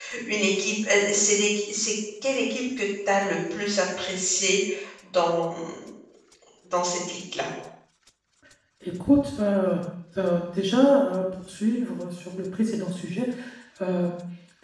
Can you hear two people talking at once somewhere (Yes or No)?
No